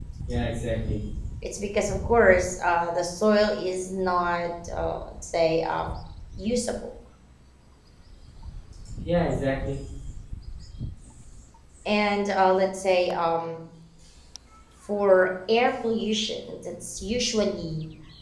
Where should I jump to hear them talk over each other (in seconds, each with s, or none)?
none